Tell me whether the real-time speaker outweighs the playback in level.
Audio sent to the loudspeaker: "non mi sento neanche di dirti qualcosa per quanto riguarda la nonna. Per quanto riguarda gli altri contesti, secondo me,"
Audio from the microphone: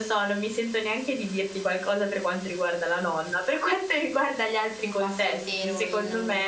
No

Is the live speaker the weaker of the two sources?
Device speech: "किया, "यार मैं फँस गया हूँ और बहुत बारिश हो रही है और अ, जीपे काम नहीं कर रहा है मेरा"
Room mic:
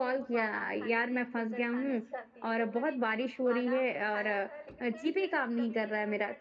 Yes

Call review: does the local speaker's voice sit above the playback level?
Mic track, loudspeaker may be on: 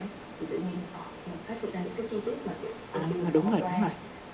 Yes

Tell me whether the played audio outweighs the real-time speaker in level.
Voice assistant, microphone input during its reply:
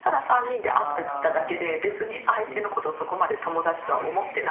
Yes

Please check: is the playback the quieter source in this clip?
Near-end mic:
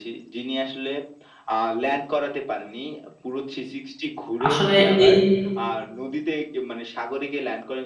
Yes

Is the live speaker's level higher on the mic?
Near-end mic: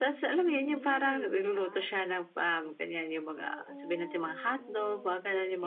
No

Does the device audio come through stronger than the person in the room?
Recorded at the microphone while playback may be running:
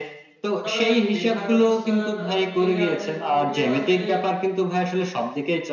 Yes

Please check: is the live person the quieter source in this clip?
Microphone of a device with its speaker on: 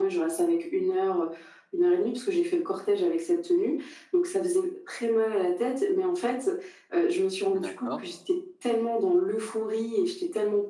Yes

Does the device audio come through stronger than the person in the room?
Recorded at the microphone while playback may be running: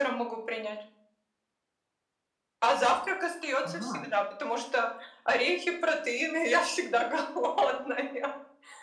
Yes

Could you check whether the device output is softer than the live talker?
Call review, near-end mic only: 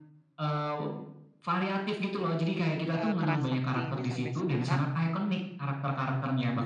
No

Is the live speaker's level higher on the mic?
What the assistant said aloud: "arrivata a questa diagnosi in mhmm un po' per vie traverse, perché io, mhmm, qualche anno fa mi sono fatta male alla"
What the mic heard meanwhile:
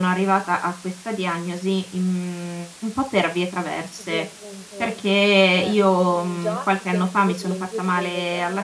No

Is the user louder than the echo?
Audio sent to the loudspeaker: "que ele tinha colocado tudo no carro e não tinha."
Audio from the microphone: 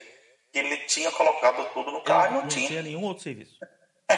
No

